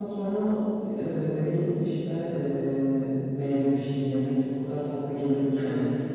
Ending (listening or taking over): taking over